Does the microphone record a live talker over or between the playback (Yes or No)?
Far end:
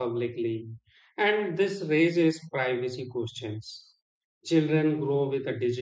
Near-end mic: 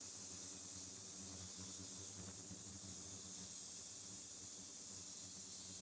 No